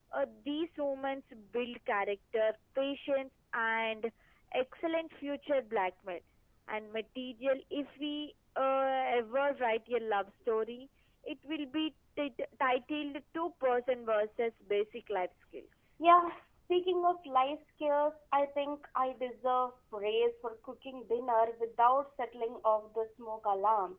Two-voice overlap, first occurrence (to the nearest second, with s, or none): none